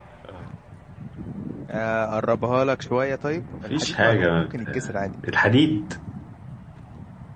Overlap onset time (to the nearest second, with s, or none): 4 s